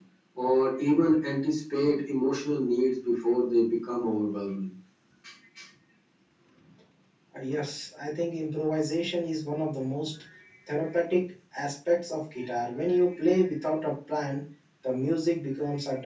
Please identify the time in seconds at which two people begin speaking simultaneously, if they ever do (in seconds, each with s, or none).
none